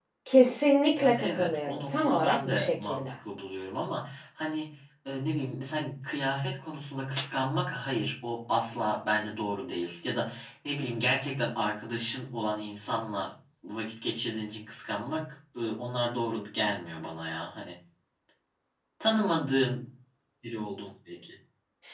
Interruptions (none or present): present